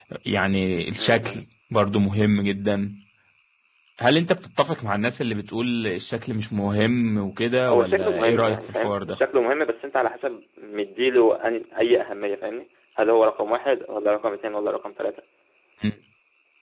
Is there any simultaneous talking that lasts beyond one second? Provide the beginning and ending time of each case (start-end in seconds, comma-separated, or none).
7.7-9.2